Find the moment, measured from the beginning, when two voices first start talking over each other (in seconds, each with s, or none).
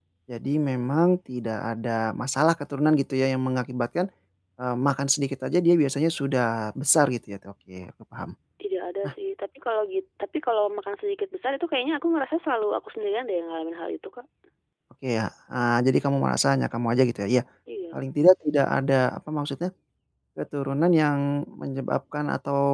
none